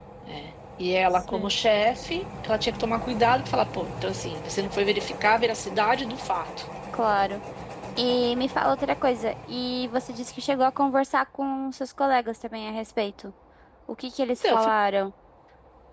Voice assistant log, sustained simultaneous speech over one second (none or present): none